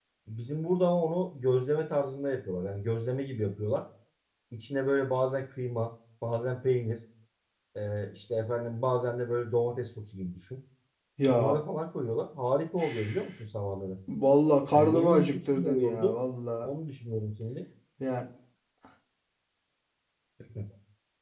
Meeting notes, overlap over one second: present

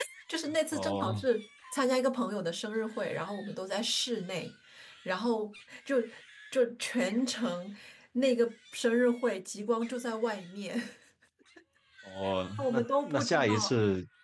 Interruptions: present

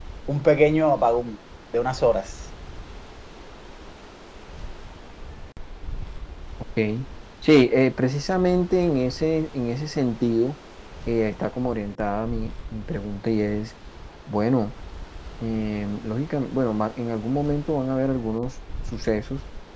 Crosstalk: none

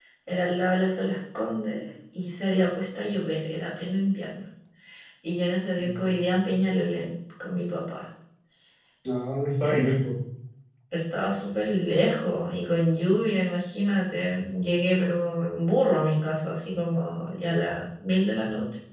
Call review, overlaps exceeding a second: none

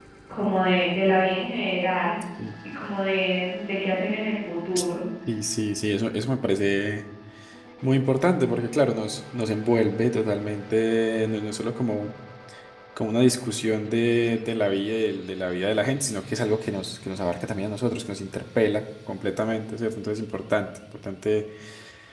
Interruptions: none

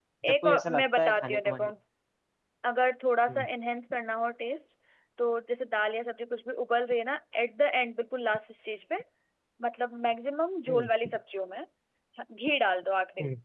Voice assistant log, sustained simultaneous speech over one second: present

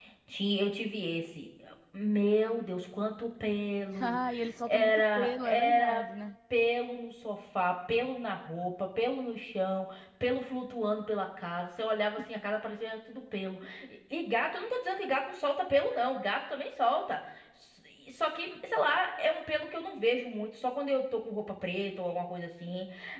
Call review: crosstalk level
present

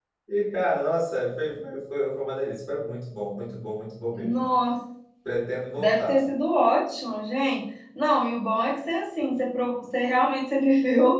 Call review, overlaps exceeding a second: none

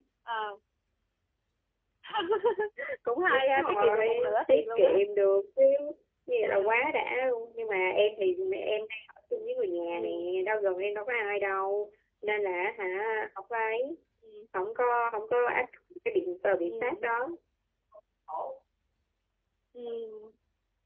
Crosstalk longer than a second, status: present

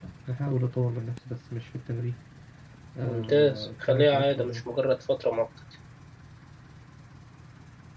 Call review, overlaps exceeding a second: present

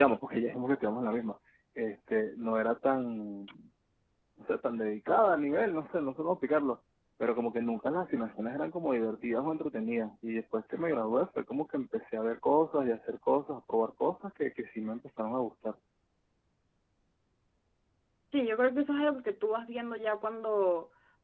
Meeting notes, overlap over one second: none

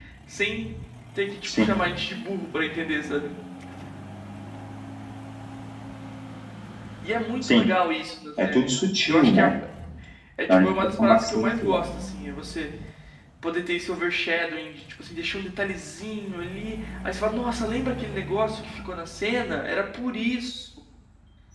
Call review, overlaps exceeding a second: present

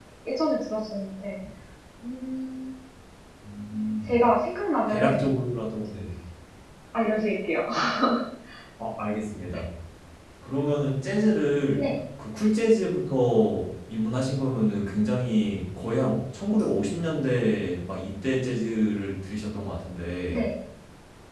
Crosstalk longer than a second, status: none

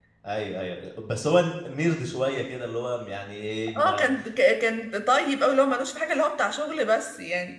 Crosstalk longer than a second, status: none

